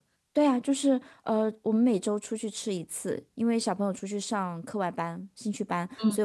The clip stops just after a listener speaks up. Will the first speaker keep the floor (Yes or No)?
Yes